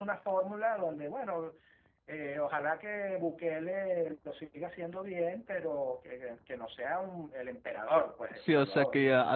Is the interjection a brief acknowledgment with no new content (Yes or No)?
No